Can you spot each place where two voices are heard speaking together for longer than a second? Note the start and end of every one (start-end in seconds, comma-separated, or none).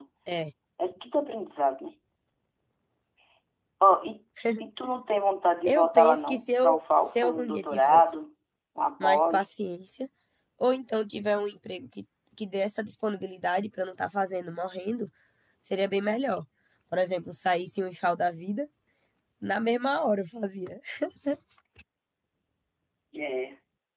5.7-8.0